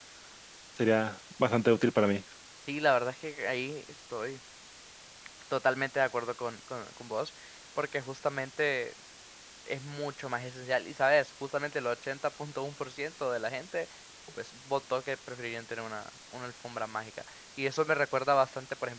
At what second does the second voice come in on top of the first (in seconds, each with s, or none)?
none